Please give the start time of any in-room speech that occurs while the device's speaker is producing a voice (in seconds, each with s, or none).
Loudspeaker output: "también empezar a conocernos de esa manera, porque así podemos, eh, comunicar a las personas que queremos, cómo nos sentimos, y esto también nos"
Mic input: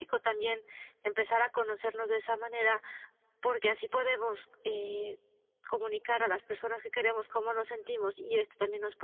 none